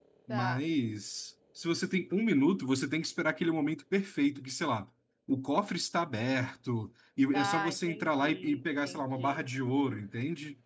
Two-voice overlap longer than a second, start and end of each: 7.3-9.4

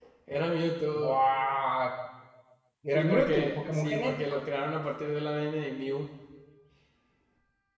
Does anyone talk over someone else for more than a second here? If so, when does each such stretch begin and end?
2.9-4.4

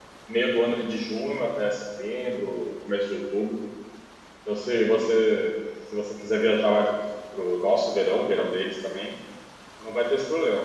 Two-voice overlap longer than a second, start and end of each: none

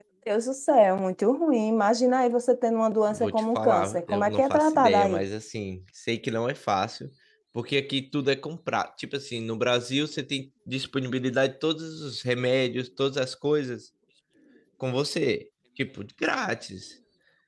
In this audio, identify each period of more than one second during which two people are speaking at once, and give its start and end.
3.1-5.2

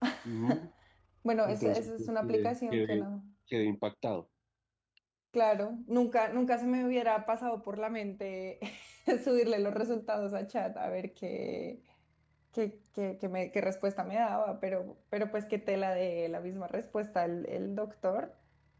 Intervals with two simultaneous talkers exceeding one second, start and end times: 1.4-3.1

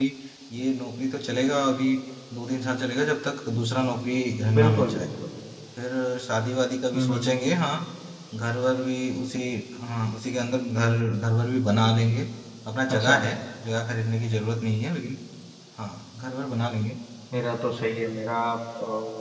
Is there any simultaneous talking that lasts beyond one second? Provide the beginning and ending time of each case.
none

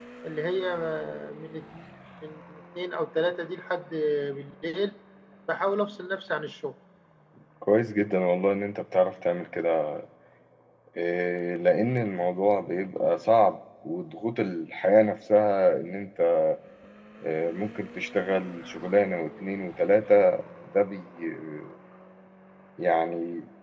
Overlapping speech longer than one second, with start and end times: none

